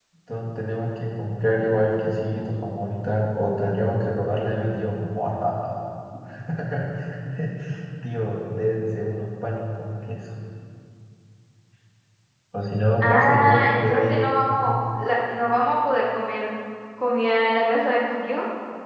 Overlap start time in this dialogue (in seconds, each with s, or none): 13.0 s